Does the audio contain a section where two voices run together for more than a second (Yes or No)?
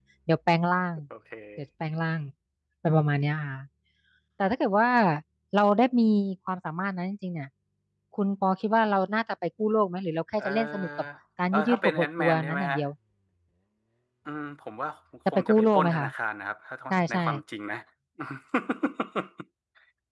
Yes